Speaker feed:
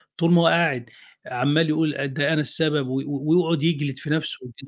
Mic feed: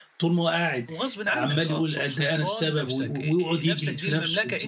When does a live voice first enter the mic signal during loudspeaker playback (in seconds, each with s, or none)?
0.9 s